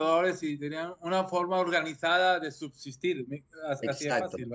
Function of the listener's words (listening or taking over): taking over